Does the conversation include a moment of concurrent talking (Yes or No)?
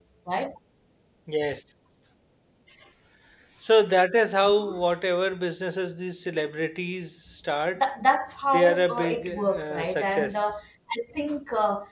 Yes